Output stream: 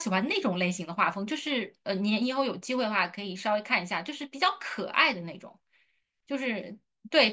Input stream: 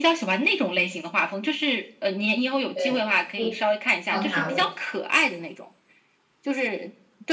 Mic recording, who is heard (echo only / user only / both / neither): both